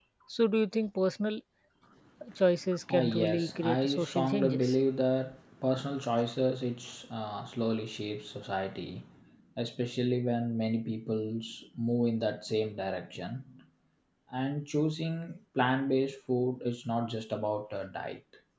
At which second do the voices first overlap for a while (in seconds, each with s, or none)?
2.9 s